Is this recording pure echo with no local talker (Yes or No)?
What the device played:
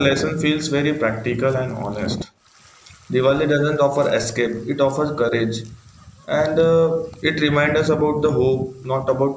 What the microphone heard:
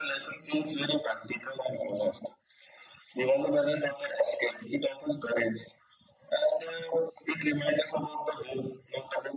Yes